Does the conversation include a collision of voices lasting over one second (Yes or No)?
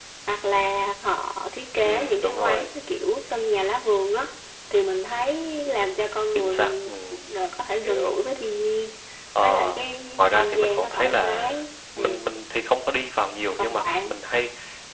Yes